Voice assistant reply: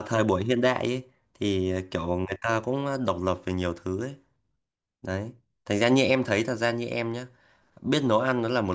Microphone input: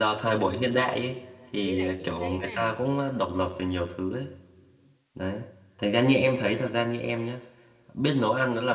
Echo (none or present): present